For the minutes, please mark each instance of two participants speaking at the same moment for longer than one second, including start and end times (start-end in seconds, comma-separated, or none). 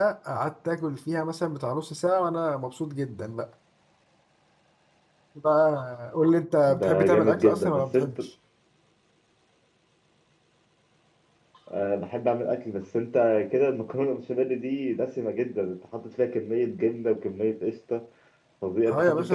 6.8-8.0